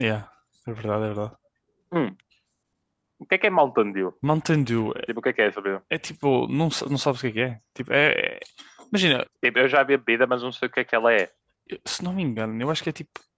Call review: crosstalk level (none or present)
none